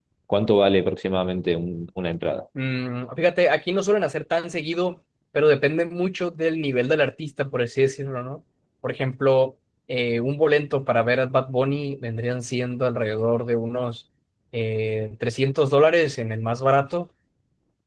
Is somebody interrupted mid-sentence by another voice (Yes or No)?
No